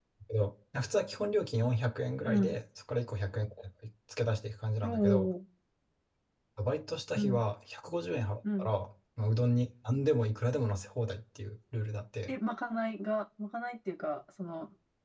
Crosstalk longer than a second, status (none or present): none